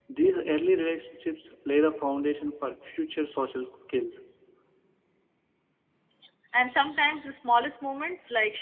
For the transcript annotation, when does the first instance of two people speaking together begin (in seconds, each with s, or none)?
none